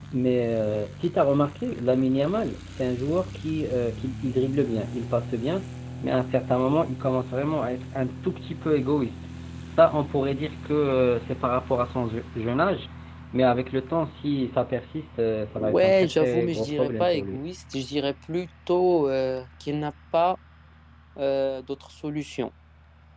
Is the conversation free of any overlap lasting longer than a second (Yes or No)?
No